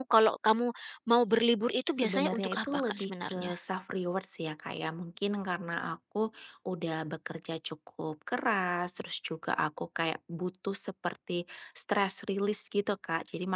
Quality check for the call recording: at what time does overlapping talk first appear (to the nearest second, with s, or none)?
2 s